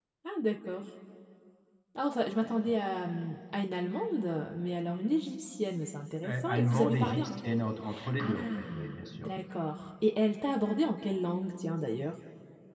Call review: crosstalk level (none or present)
present